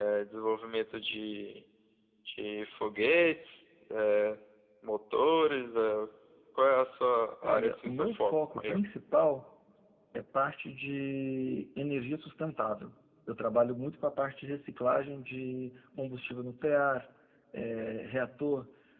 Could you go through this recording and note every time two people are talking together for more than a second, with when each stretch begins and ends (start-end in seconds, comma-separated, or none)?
7.4-8.8